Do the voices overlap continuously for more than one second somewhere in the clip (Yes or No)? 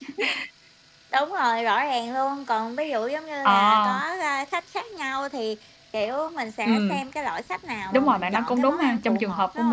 Yes